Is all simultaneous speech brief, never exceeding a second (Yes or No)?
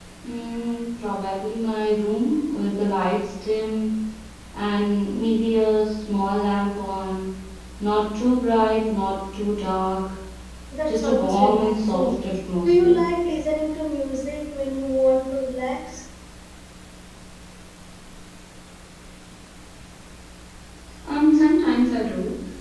No